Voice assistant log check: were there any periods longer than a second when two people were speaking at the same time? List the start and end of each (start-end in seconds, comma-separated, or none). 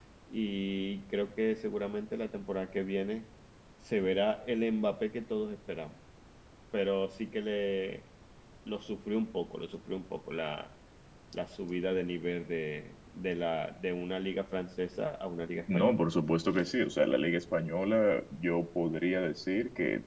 none